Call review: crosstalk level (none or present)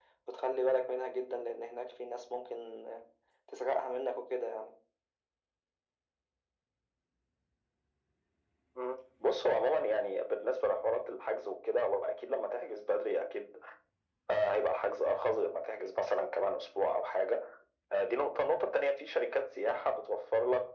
none